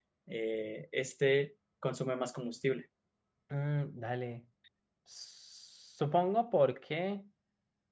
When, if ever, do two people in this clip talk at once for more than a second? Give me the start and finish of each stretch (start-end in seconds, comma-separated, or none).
none